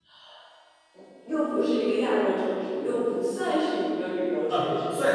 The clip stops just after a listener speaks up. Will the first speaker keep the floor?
No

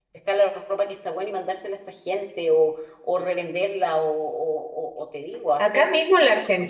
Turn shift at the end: Yes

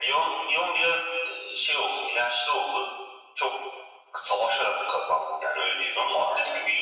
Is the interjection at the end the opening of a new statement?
No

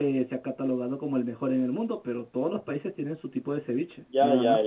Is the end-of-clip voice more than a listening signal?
Yes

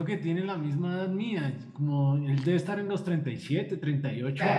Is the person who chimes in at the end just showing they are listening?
No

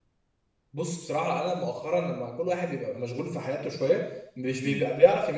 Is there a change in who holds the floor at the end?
No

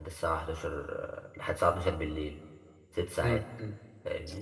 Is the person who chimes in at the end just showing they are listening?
No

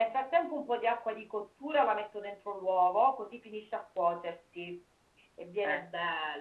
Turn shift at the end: No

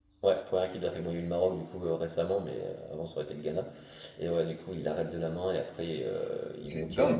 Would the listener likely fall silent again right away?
No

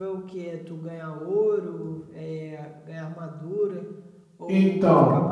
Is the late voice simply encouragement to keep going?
Yes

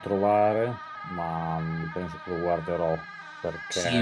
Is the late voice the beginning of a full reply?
Yes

